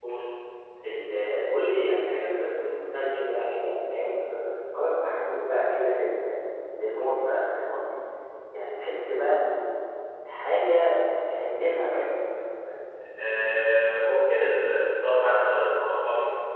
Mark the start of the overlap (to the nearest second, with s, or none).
none